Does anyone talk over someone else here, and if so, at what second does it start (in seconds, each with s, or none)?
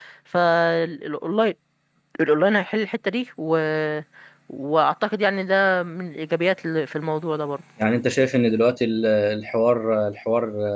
none